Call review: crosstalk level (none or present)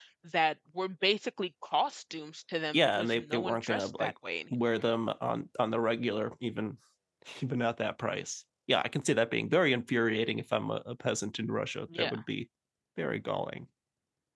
present